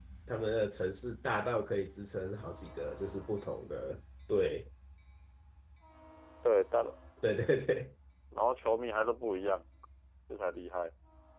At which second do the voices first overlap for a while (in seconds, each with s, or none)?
none